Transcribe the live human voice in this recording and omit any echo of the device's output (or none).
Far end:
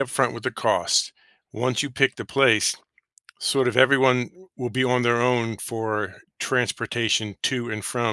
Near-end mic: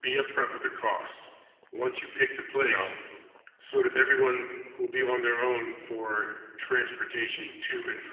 you know.